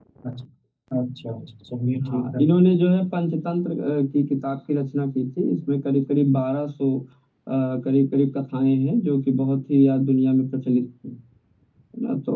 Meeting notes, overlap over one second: none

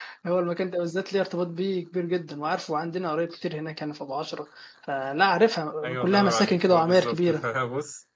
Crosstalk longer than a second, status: present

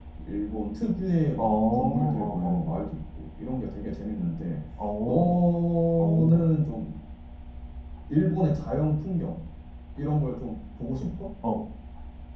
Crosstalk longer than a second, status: present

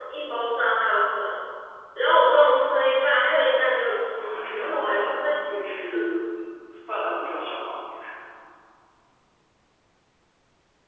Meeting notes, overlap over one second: present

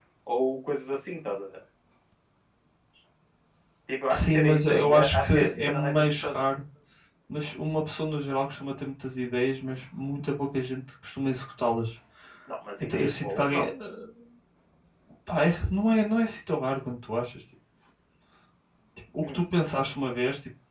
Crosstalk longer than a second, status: present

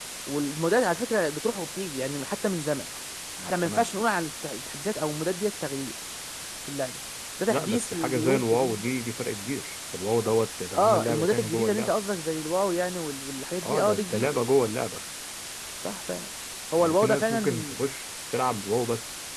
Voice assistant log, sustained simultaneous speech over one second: present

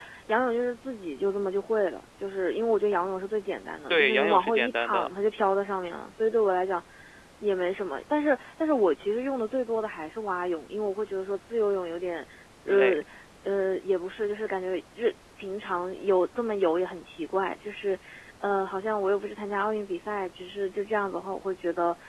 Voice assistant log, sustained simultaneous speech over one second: present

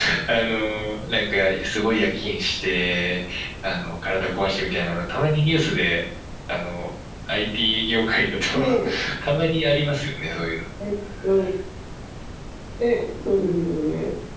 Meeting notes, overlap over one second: none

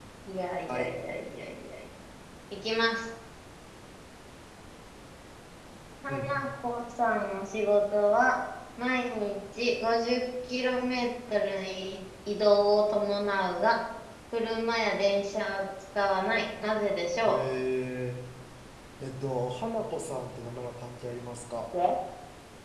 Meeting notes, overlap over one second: none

